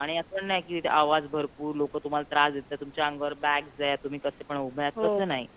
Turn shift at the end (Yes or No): No